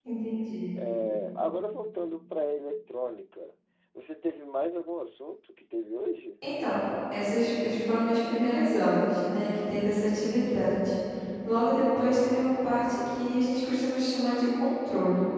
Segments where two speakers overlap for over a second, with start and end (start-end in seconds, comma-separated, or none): none